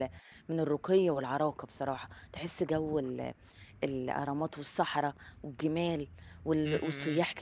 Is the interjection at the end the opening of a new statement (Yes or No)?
No